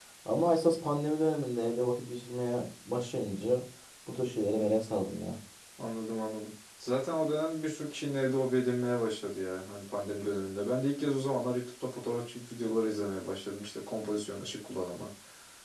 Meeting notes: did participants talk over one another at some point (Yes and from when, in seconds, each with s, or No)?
No